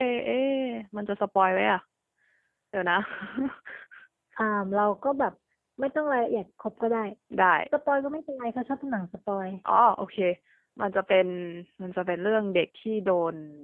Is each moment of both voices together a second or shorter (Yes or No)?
Yes